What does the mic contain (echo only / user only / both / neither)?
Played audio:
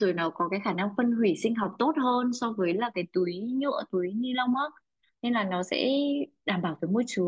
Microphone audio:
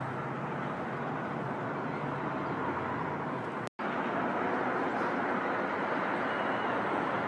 neither